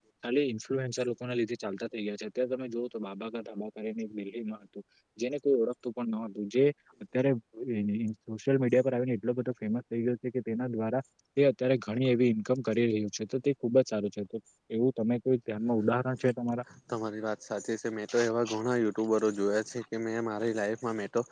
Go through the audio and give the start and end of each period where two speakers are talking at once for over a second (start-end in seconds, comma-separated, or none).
none